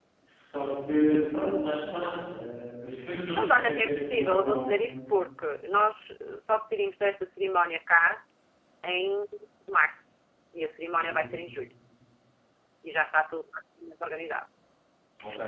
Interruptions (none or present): present